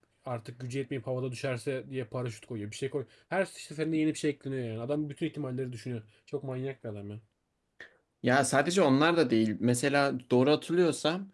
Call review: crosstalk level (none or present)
none